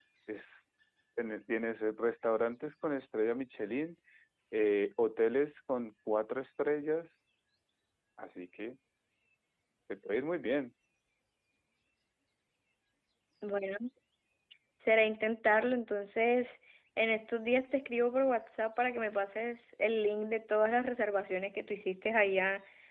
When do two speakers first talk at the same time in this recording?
none

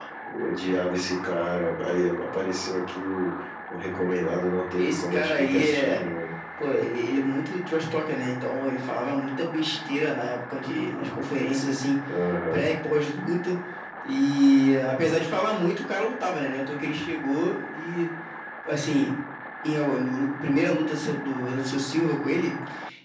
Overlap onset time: 4.8 s

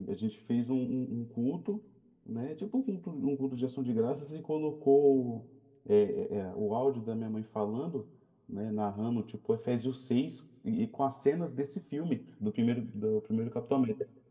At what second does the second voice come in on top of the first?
none

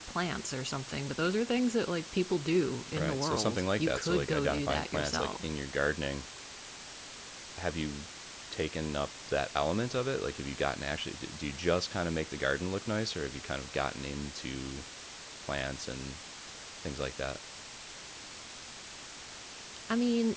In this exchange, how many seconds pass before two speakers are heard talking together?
2.8 s

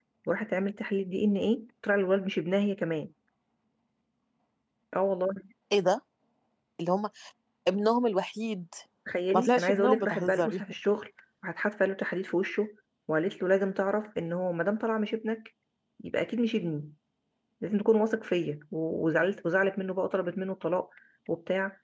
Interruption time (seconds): 9.3 s

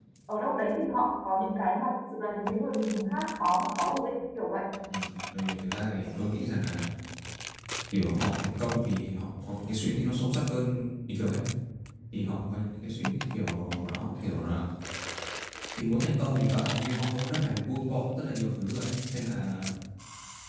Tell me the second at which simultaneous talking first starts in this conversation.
none

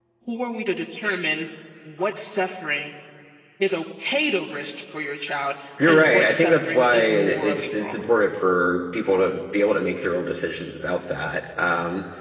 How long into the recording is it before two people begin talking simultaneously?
5.8 s

